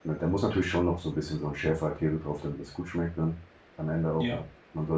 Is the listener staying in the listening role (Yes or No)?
Yes